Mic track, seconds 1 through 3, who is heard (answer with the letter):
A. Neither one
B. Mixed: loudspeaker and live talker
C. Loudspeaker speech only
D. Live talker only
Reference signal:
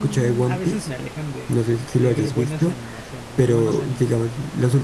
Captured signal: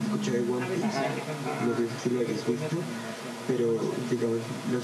B